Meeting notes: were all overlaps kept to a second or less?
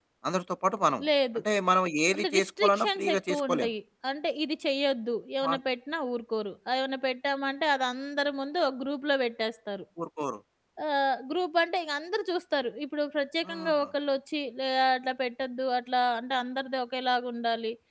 No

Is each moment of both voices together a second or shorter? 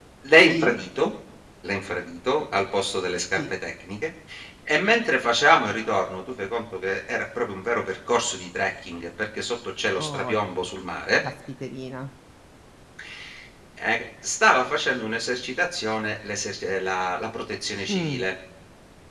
Yes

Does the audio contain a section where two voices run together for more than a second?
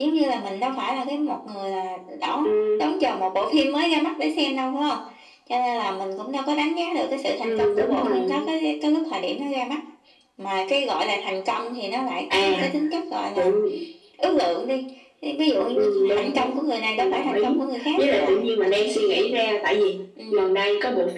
Yes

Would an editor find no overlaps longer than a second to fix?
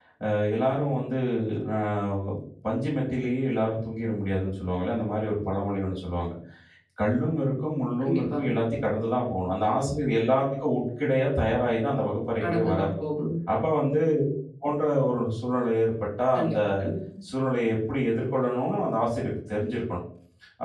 Yes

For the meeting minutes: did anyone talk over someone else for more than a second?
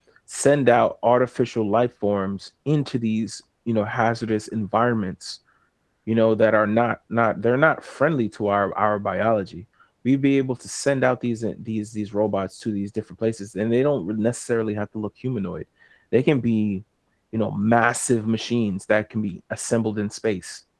No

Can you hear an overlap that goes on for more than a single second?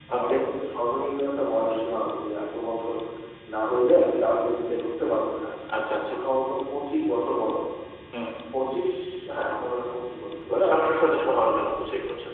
No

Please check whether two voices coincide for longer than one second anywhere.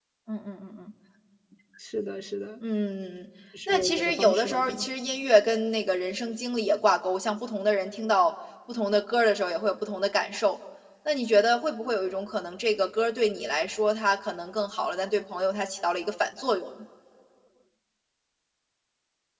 Yes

